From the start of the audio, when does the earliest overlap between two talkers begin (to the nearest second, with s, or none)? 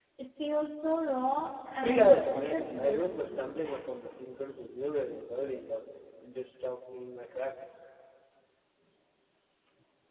2 s